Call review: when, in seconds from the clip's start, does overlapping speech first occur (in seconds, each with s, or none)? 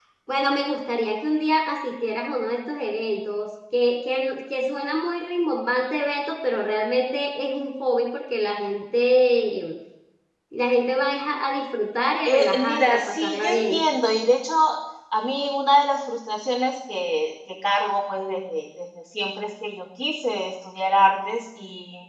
12.2 s